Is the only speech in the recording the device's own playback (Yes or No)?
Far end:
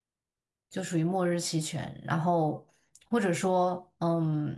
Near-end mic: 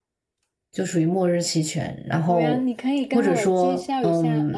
No